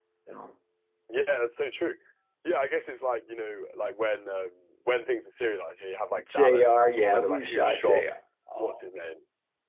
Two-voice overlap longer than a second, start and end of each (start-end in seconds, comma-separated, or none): 6.3-8.0